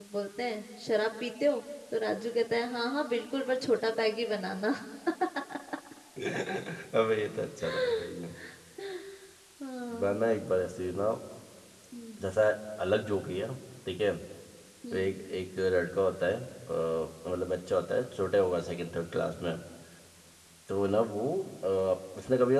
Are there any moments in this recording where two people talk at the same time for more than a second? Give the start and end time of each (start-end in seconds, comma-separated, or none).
none